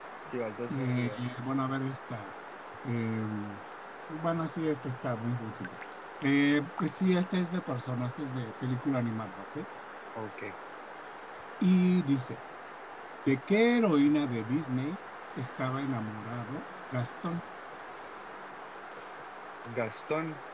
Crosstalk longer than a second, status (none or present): none